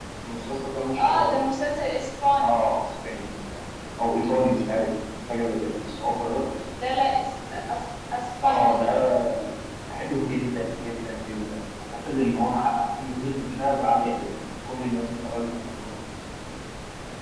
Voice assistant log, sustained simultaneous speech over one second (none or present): none